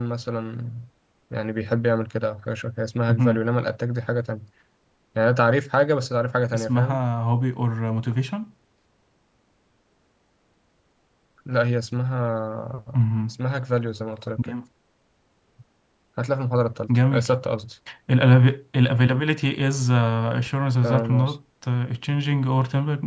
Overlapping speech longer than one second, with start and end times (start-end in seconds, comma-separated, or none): none